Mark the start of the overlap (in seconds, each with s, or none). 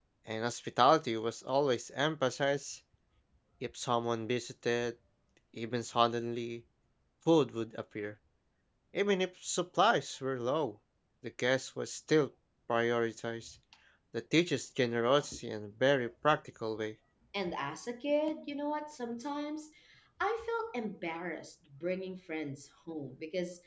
none